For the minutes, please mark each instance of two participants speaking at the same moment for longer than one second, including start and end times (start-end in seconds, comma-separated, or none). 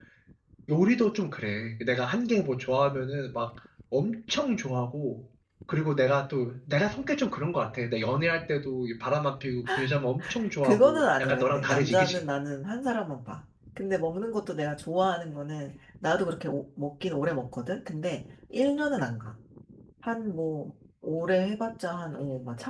10.6-12.2